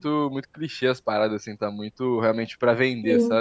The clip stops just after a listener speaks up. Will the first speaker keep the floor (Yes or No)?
No